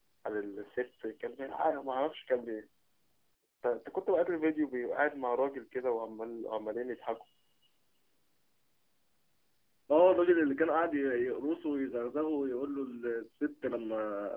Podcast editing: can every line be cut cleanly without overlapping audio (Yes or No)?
Yes